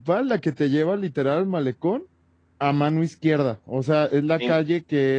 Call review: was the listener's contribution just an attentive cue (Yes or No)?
Yes